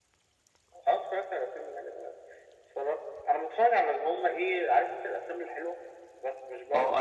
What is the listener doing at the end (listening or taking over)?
taking over